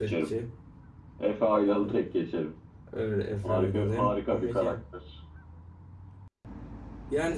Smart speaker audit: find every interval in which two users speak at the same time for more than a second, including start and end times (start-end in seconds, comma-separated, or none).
3.4-4.7